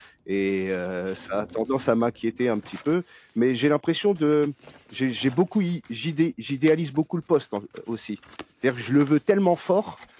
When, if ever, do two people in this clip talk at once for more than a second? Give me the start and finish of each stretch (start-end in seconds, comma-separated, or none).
none